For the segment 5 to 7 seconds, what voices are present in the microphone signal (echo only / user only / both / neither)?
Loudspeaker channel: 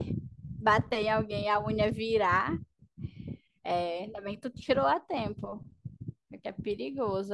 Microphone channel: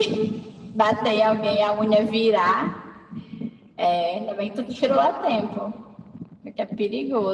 echo only